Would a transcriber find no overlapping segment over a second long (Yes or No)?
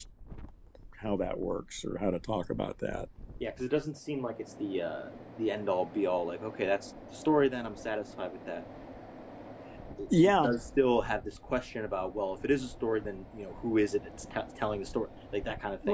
Yes